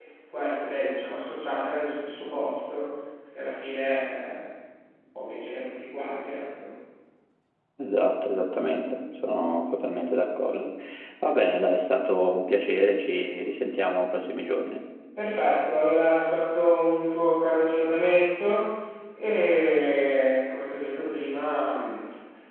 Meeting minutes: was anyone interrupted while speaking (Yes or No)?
No